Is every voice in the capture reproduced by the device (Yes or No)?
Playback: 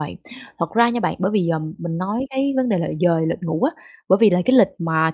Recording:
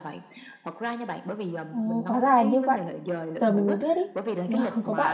No